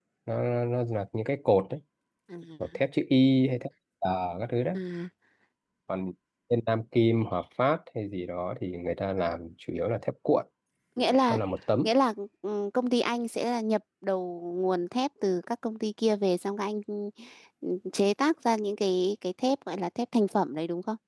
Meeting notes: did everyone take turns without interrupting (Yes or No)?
Yes